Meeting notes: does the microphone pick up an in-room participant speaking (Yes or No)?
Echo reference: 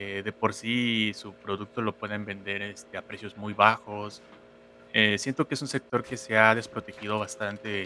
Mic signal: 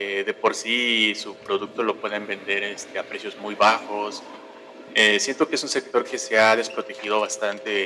No